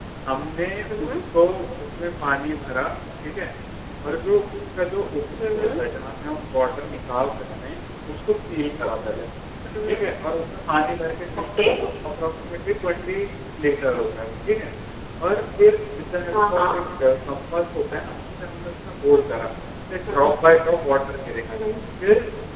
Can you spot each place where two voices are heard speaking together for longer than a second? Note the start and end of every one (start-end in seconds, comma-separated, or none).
none